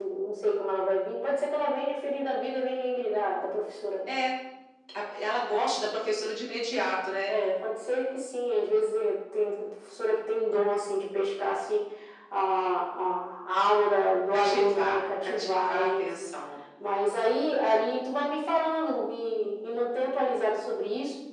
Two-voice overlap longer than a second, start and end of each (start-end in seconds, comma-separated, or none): 14.3-16.1